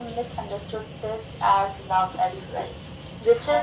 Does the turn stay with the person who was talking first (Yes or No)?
Yes